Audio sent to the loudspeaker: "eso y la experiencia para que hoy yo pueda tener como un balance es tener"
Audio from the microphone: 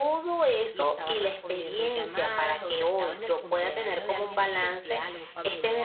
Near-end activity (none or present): present